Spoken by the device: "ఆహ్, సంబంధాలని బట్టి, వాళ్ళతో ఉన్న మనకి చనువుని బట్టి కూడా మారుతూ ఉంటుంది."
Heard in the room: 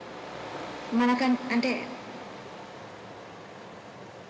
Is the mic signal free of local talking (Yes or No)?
No